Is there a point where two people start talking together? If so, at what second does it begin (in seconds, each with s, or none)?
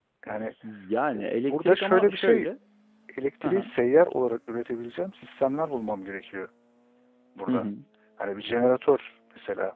1.1 s